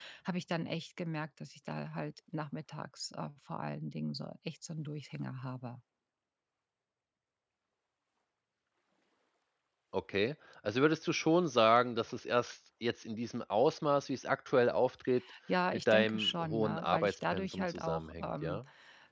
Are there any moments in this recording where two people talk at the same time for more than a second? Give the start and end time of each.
15.7-18.6

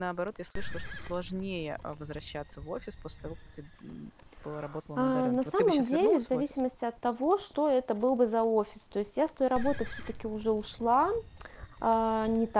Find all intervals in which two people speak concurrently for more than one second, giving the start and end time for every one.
5.0-6.6

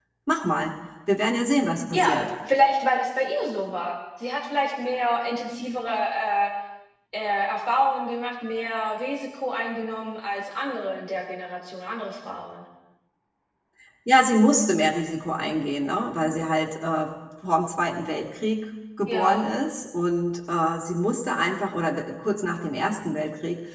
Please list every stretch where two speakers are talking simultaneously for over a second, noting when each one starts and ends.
none

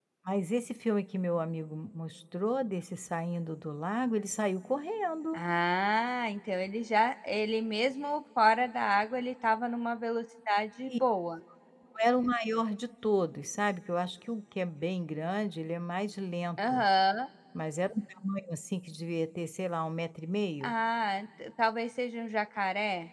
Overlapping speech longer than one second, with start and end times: none

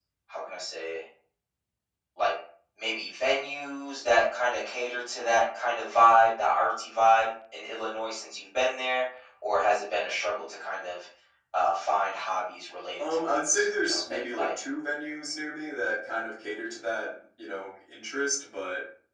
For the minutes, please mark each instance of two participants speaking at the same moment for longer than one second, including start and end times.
13.0-14.5

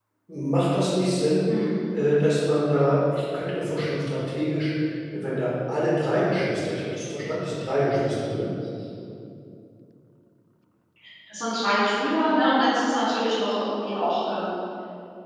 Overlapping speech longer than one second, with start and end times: none

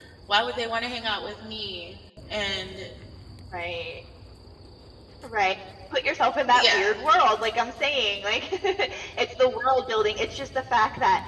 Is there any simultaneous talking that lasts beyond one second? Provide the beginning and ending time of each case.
none

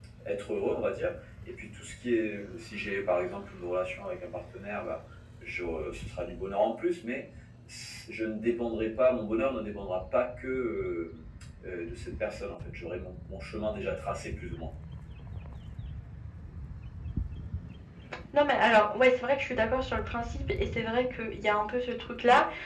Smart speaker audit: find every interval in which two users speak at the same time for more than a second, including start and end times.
none

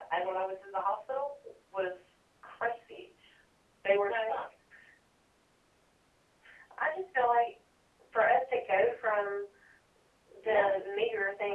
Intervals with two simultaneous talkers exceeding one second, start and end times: none

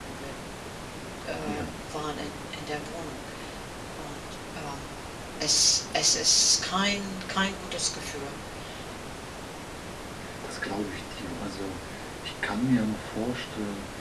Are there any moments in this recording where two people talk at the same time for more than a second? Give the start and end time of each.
none

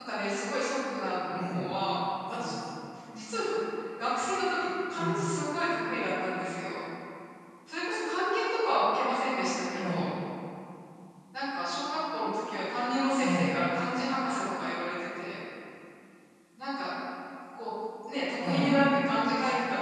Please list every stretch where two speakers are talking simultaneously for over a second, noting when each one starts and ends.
none

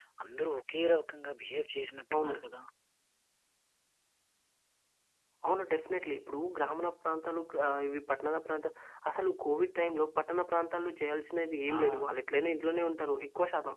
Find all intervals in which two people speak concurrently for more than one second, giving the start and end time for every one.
none

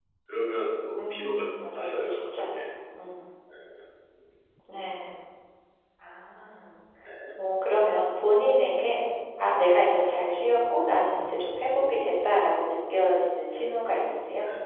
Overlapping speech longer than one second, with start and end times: 1.0-2.6

